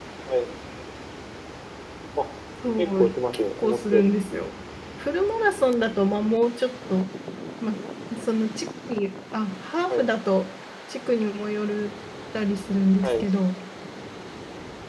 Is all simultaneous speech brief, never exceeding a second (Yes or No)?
No